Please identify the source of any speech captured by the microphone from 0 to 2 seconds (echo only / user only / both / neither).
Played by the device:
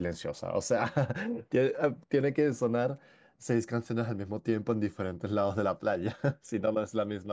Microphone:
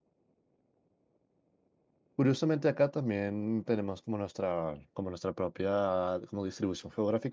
neither